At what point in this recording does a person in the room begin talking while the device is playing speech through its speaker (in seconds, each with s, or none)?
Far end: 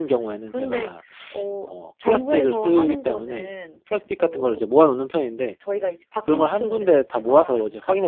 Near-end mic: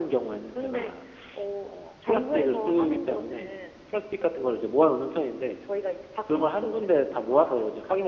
none